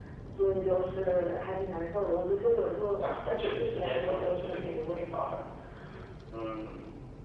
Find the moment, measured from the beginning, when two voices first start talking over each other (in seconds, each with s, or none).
3.2 s